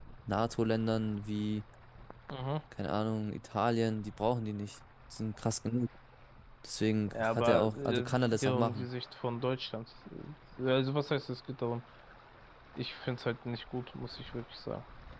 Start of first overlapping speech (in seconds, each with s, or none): 7.1 s